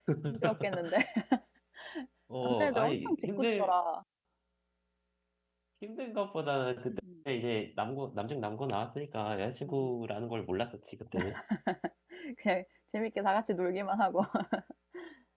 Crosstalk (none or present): present